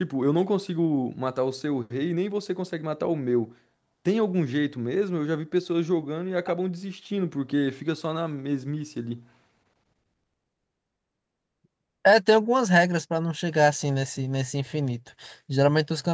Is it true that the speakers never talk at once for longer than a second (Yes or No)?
Yes